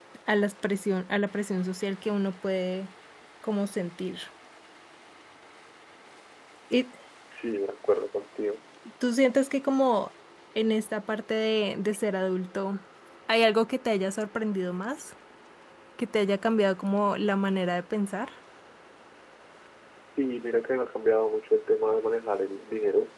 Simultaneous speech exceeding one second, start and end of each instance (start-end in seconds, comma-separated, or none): none